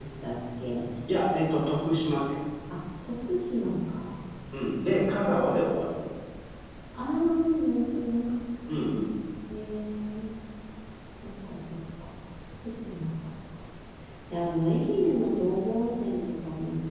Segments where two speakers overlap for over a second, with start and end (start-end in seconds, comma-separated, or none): none